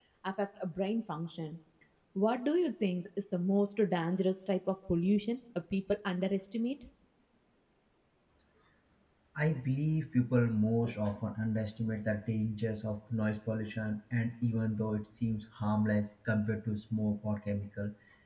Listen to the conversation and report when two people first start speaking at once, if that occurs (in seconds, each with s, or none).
none